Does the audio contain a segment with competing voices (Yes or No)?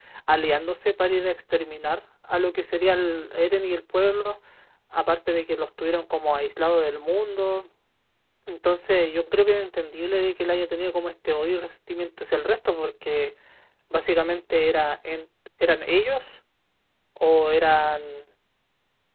No